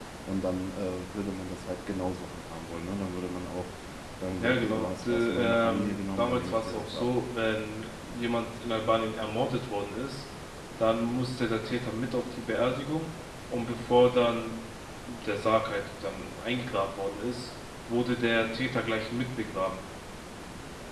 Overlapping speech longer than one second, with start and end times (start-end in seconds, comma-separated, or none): 4.4-7.1